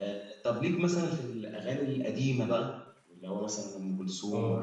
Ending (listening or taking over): taking over